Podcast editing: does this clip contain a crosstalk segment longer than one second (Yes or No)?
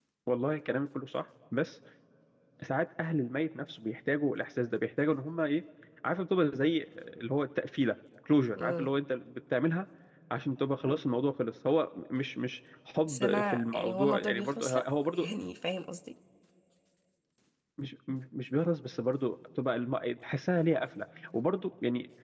Yes